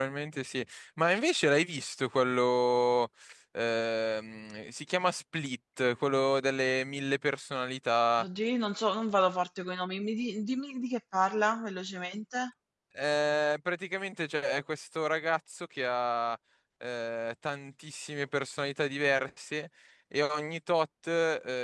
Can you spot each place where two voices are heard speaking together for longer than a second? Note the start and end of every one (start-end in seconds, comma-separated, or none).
none